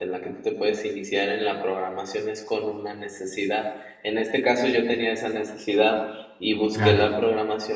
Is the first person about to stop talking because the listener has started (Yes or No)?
No